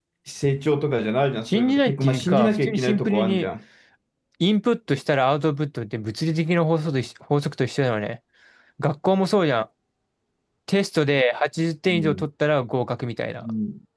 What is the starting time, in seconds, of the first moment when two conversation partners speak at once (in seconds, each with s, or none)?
1.5 s